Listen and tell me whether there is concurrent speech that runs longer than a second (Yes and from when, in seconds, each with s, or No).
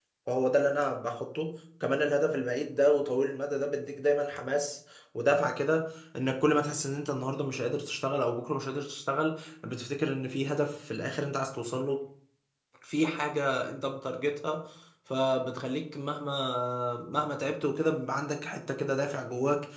No